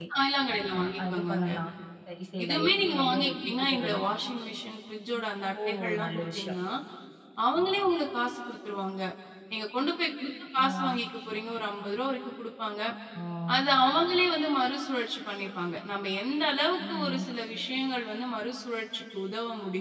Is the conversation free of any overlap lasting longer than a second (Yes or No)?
No